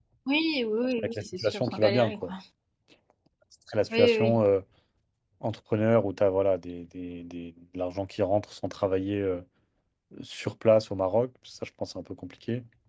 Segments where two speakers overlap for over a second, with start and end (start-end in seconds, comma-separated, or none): 1.0-2.3